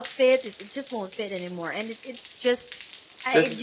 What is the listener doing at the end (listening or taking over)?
listening